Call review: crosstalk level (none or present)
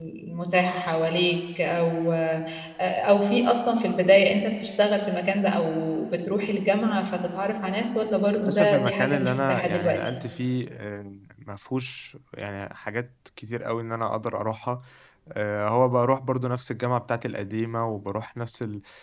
present